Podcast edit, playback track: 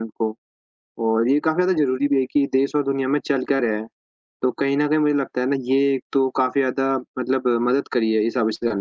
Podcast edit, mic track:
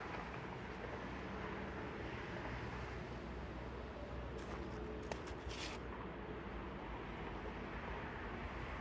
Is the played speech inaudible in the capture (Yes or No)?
Yes